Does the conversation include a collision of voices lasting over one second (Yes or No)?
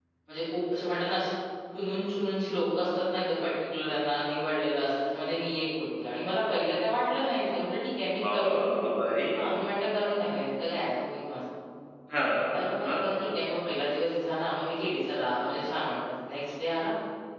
No